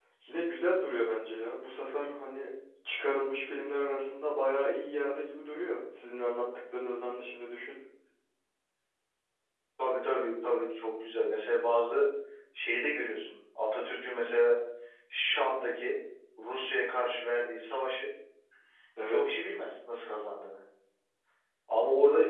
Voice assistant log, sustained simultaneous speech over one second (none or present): none